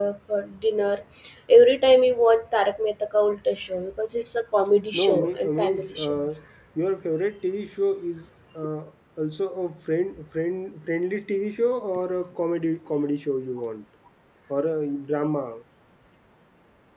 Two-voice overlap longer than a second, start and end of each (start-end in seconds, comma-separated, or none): 4.9-6.3